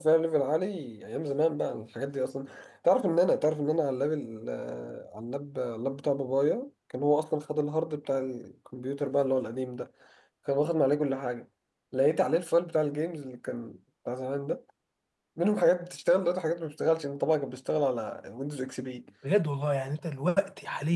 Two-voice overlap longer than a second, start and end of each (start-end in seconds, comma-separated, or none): none